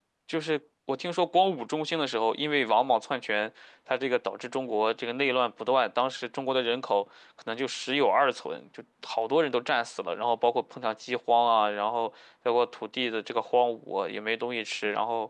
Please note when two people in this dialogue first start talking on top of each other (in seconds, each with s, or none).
none